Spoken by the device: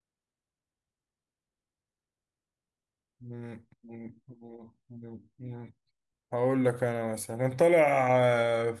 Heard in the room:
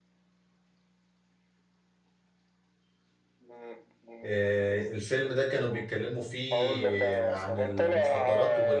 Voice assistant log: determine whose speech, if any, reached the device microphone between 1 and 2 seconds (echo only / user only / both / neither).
neither